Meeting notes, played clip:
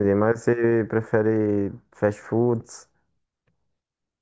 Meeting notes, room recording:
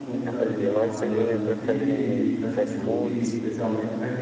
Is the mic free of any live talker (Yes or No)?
No